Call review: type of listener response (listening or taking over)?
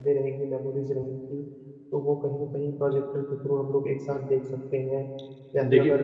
listening